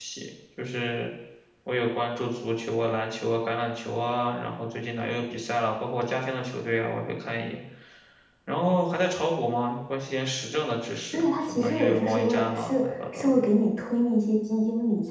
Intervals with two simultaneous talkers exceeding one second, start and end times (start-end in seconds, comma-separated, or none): 11.1-13.4